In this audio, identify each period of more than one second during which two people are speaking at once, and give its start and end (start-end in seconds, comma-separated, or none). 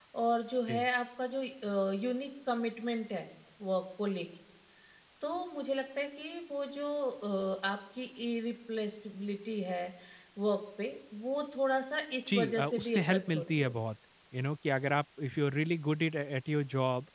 12.3-13.8